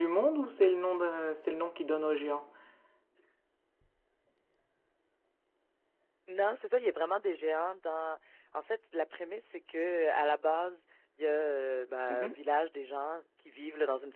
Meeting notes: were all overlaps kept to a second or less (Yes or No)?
Yes